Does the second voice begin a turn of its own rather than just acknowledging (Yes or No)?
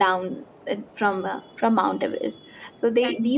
No